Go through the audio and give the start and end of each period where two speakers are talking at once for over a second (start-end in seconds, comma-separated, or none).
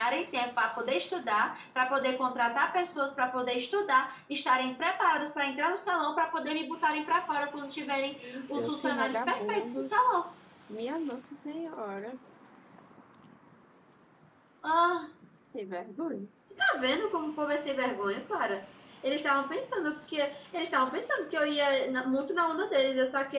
8.1-10.0